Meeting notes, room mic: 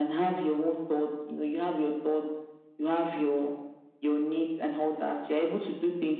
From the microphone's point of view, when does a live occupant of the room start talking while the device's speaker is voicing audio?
none

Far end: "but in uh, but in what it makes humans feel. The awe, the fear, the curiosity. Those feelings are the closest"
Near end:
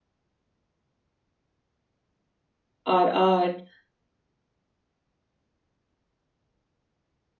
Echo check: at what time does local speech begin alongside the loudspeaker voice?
2.9 s

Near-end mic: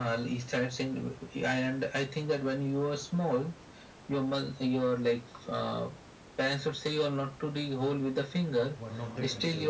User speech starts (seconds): 8.7 s

